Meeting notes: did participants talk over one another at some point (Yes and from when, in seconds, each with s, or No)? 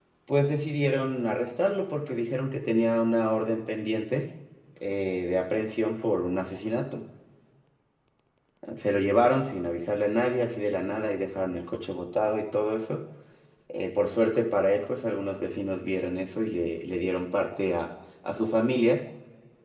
No